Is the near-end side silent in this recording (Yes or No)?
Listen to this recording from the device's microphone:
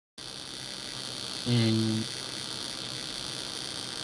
No